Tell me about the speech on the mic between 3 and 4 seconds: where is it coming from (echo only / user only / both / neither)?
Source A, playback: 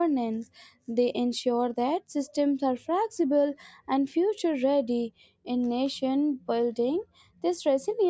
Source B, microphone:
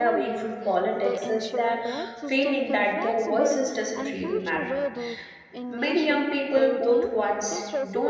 both